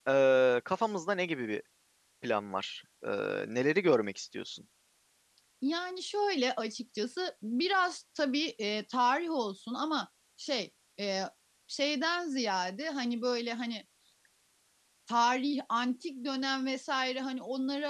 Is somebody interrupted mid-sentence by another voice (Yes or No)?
No